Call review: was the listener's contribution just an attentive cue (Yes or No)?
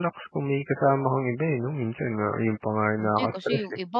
No